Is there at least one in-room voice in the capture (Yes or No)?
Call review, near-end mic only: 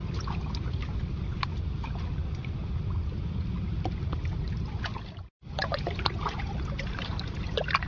No